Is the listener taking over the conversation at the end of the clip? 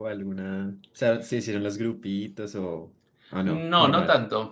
Yes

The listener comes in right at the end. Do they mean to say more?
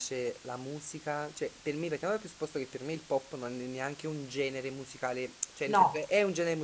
No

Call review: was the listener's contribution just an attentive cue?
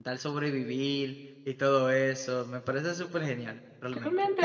No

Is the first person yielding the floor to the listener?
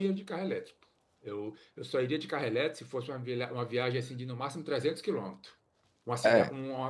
No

